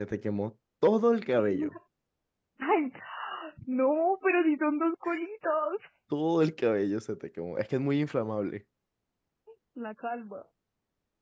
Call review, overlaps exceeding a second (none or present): none